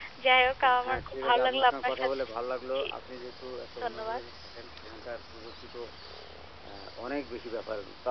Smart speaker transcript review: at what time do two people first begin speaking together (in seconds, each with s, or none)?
0.8 s